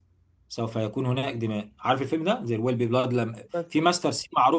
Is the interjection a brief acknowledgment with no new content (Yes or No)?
Yes